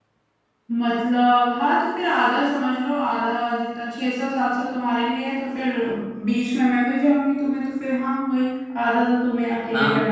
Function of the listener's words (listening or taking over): taking over